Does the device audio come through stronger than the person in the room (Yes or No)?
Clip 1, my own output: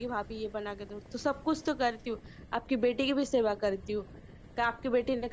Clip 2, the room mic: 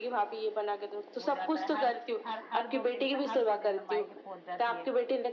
Yes